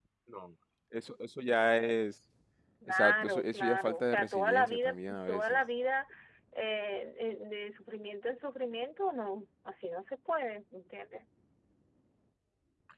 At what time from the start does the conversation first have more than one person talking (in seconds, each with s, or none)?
2.9 s